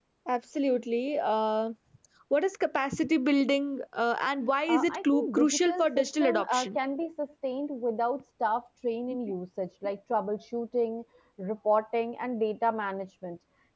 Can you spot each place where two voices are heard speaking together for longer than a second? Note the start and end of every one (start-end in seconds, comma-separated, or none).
4.7-6.8